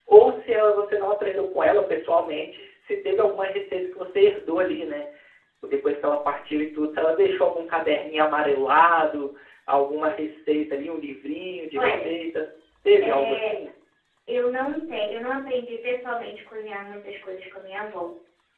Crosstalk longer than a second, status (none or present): none